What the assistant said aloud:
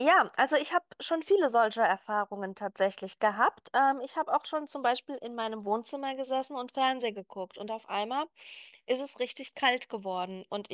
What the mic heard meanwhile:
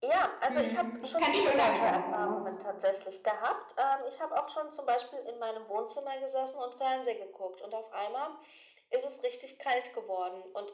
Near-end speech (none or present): present